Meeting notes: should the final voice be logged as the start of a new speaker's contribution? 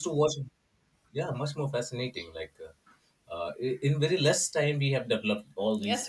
Yes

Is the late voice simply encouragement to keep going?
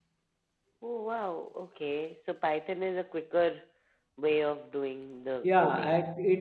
No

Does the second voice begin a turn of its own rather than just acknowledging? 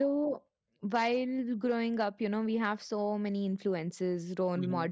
No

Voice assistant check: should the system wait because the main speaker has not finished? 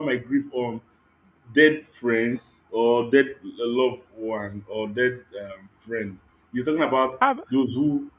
Yes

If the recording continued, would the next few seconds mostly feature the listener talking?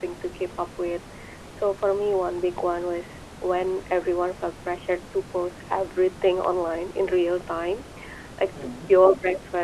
No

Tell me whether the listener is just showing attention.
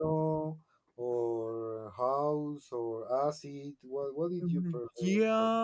No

